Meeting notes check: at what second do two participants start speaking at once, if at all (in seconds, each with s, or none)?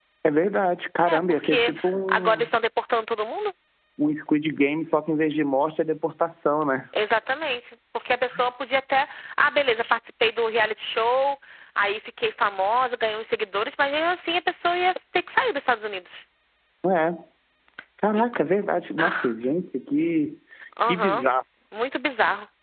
1.1 s